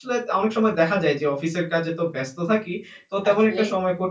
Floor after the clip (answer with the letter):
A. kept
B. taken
A